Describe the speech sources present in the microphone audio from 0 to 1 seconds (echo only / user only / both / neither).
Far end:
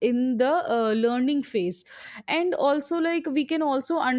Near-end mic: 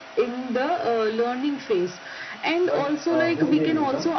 echo only